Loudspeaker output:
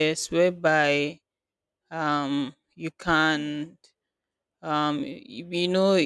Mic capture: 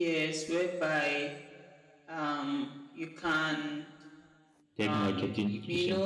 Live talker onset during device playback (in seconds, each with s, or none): 4.8 s